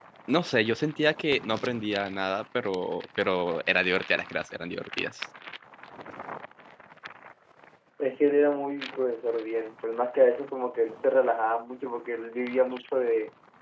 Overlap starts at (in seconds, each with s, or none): none